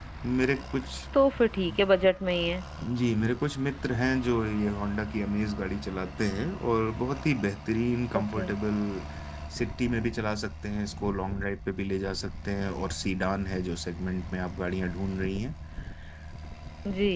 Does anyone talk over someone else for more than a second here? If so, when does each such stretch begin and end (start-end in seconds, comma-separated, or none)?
none